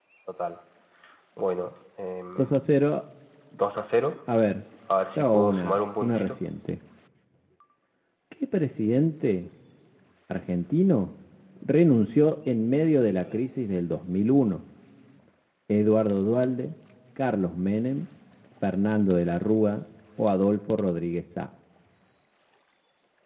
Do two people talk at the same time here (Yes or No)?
Yes